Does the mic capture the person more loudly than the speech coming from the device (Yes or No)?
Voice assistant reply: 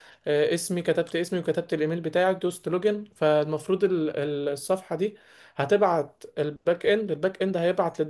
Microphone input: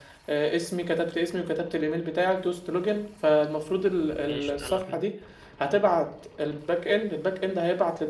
No